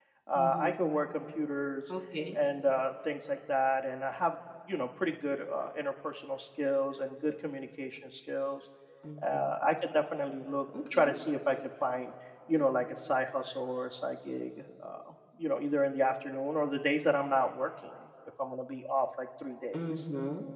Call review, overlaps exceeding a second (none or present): none